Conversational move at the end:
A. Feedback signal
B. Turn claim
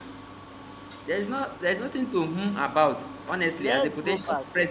B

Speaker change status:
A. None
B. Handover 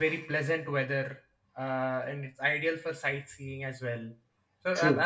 A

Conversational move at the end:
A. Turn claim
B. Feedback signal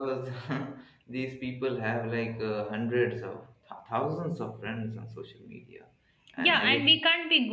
A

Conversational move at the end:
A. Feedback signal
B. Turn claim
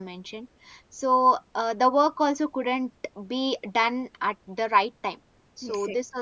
A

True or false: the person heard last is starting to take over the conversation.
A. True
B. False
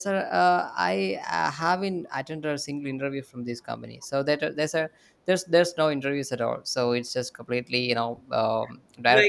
A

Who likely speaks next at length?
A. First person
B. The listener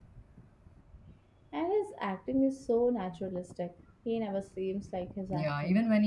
B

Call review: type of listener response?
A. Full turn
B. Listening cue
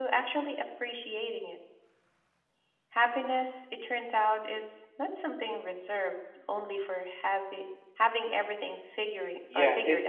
A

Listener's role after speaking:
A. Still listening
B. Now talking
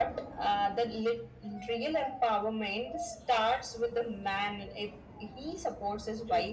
B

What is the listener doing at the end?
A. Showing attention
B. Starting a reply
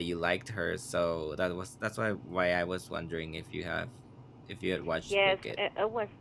B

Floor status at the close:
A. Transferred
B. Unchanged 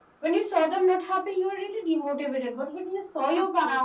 B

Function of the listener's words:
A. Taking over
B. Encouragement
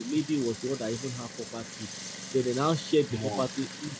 B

